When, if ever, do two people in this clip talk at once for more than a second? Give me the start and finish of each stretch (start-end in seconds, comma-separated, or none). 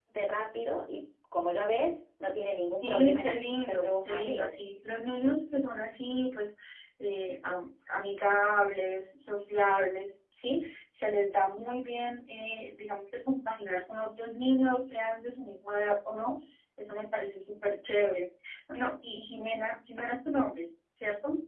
2.8-4.5